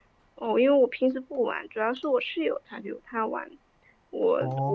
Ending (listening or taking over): listening